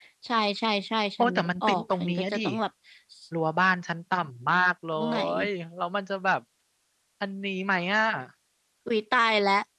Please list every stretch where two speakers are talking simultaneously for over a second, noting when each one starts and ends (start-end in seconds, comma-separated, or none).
1.2-2.4